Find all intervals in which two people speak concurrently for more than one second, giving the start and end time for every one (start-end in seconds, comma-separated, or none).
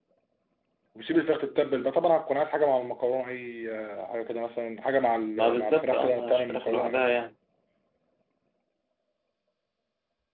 5.3-7.2